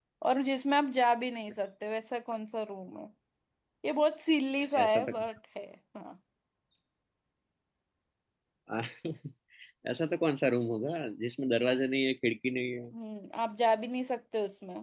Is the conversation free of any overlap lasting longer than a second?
Yes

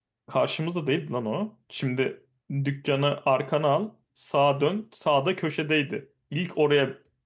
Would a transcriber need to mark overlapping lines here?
No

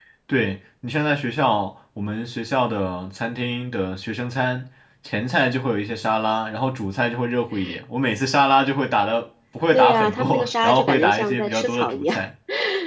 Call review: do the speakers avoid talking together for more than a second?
No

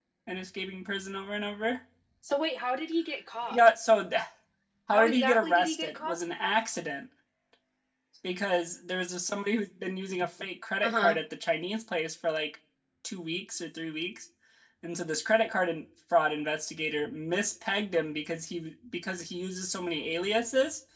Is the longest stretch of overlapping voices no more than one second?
No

